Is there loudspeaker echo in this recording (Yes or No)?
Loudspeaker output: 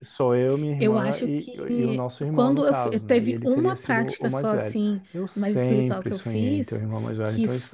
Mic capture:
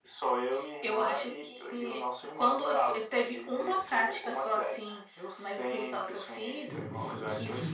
Yes